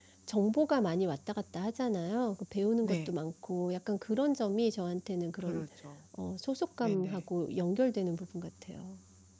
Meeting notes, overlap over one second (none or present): none